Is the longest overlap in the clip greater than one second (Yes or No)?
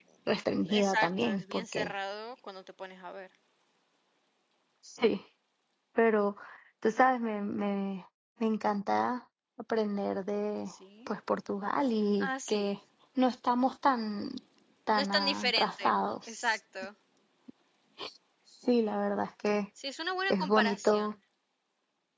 Yes